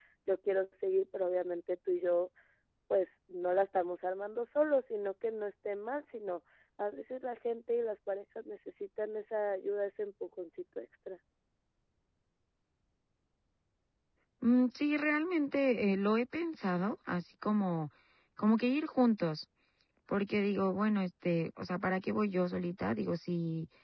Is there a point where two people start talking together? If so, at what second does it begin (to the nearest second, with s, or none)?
none